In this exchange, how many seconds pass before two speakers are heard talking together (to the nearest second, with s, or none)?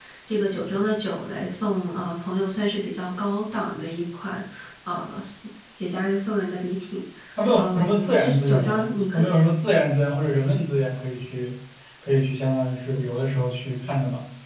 8 s